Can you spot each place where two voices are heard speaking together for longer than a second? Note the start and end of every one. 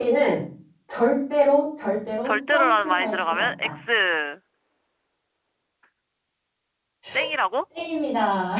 2.2-3.7

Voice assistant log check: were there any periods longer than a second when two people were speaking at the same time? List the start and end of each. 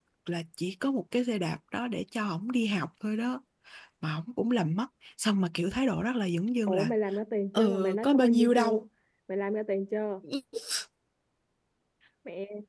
7.5-8.8

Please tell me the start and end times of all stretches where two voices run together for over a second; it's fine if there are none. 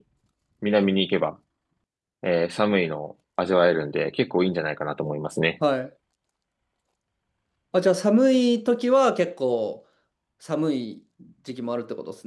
none

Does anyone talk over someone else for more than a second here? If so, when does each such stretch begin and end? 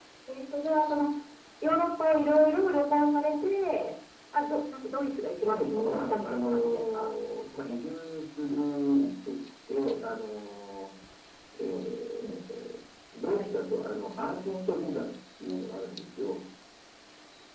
5.4-7.1

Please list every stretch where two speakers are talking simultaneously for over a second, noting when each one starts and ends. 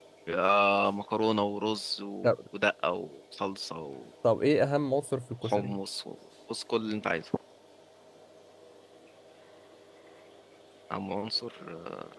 none

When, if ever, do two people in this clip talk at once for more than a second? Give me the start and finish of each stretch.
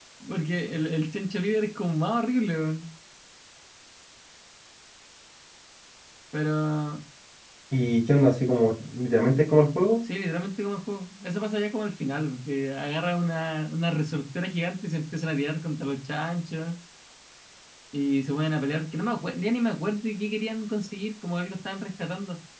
none

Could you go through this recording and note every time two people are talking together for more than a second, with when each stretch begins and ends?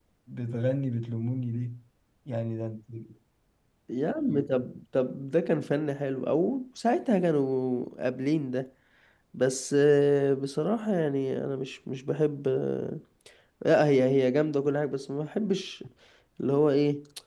none

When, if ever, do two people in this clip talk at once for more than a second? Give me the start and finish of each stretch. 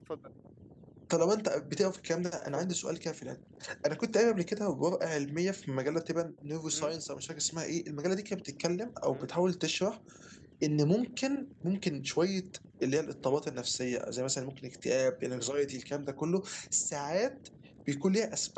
none

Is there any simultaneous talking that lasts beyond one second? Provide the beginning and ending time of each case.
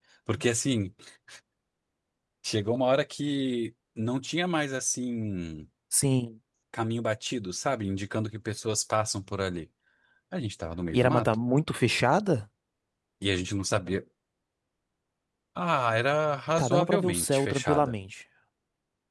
16.6-17.9

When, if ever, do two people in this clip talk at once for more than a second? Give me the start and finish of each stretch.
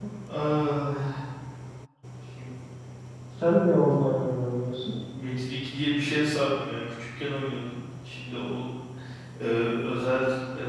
none

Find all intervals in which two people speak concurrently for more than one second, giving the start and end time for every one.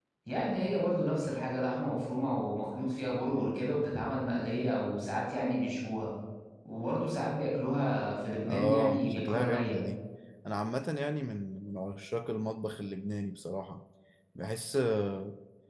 8.4-9.8

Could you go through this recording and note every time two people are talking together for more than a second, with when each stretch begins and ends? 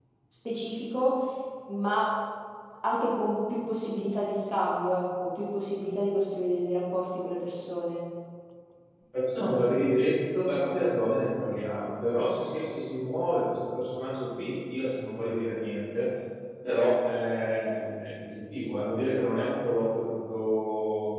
none

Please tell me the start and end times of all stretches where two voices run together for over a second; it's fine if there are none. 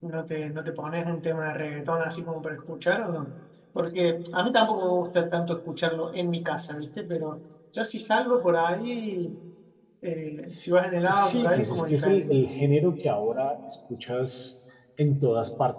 11.1-12.5

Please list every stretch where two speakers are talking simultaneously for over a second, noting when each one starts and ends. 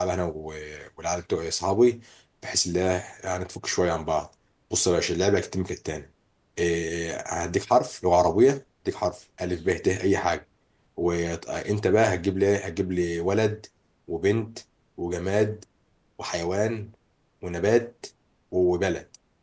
none

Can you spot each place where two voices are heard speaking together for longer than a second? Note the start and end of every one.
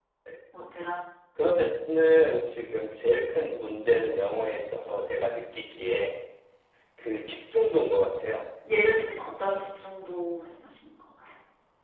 none

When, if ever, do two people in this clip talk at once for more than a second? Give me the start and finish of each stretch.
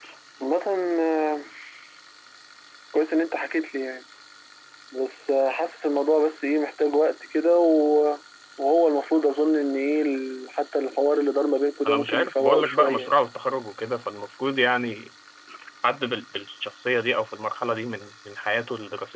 11.9-13.3

